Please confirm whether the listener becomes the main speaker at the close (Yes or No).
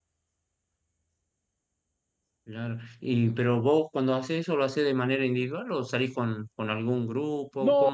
Yes